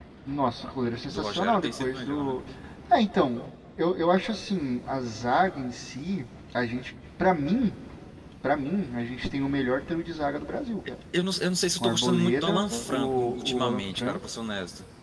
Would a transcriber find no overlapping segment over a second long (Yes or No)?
No